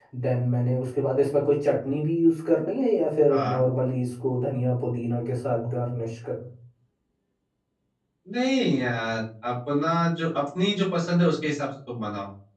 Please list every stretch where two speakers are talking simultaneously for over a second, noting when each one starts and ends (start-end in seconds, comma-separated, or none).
none